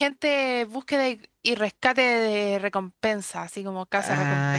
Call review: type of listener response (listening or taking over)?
taking over